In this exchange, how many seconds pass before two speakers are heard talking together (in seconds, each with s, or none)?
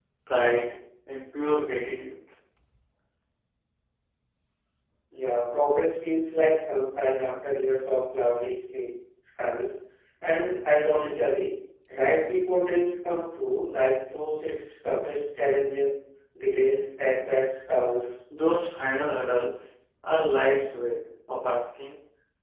none